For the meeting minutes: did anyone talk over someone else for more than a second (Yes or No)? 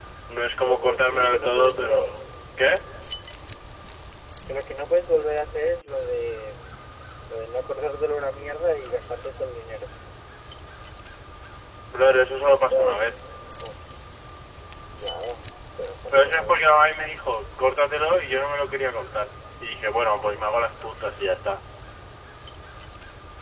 Yes